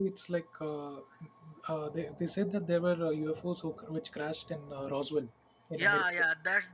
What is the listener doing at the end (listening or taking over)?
taking over